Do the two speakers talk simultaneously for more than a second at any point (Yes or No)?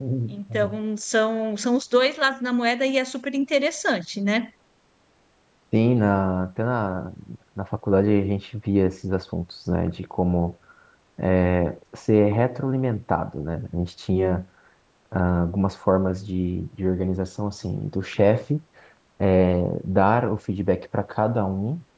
No